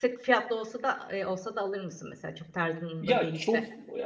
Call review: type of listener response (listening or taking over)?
taking over